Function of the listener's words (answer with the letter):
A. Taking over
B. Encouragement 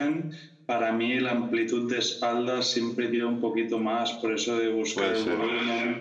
B